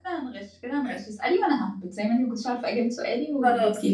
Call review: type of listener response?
taking over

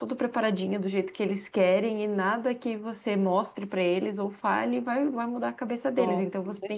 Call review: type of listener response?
listening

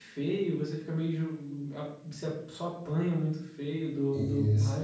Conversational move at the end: taking over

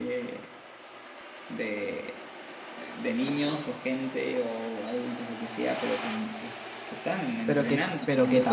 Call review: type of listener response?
taking over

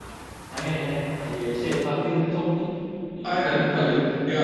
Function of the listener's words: taking over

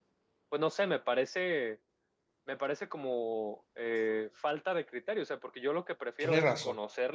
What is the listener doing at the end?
listening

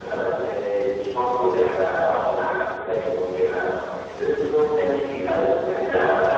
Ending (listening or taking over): listening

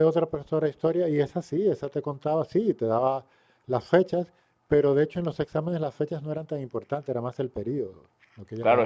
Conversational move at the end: taking over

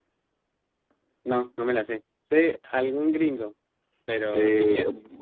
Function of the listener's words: taking over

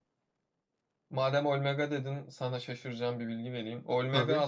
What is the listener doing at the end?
listening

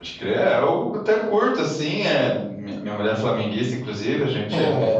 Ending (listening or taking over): listening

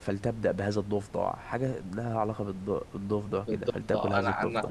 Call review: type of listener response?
taking over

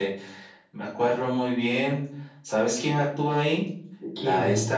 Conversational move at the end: listening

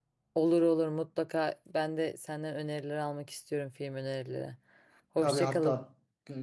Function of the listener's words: taking over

